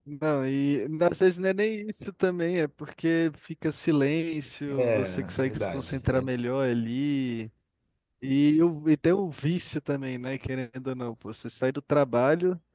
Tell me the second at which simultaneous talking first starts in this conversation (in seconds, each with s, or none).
4.7 s